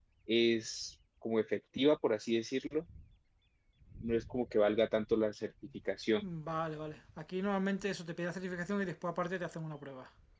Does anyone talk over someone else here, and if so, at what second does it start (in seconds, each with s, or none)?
none